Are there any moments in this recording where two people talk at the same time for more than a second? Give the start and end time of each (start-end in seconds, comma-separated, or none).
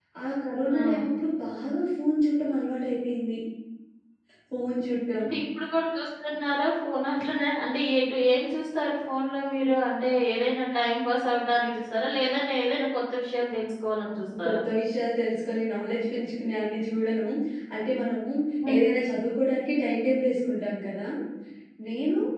none